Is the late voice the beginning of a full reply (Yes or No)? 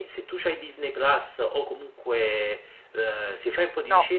No